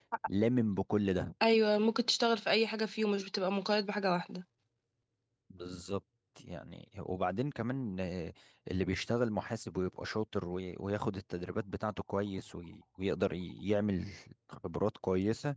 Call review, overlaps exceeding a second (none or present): none